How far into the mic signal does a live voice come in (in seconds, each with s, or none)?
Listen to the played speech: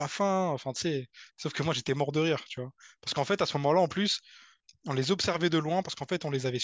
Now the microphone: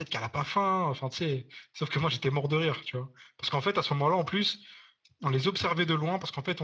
none